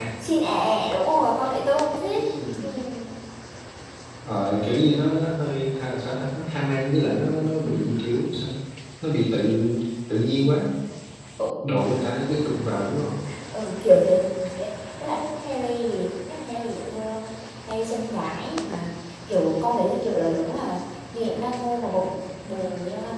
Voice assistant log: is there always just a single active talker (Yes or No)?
Yes